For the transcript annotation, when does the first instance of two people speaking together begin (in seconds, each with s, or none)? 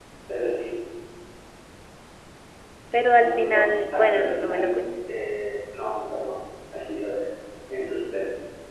3.1 s